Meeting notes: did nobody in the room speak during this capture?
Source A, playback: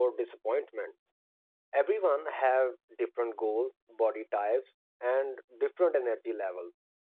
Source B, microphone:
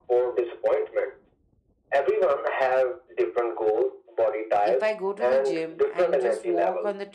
No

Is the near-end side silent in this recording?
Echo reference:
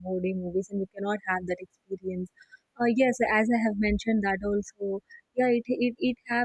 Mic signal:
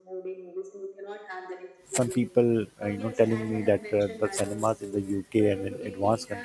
No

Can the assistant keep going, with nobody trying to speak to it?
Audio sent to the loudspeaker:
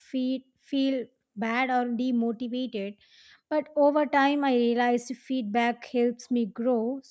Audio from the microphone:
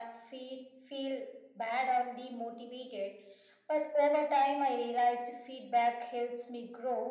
Yes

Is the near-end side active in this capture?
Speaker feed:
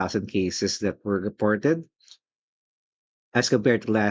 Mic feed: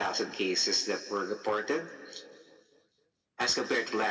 No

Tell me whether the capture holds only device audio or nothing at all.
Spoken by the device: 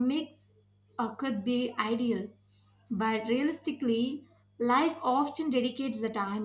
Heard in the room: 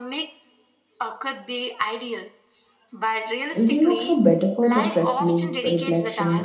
No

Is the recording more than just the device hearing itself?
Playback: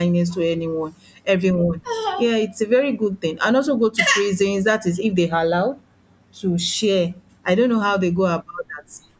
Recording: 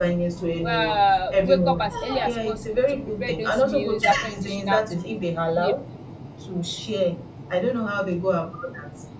Yes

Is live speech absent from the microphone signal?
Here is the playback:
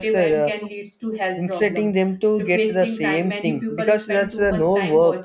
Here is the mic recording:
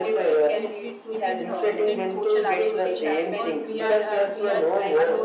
No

